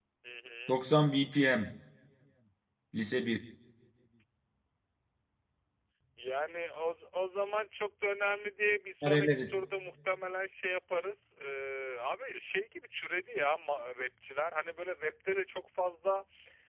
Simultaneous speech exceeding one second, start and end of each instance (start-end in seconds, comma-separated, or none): none